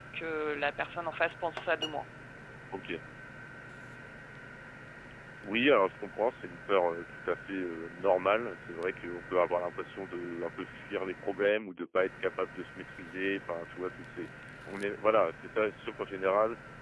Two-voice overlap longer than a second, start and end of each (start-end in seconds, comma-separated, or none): none